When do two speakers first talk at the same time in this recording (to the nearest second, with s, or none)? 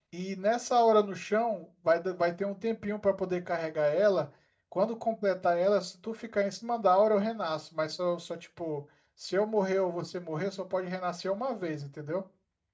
none